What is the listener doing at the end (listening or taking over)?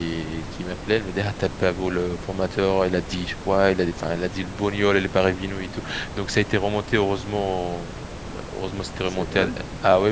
listening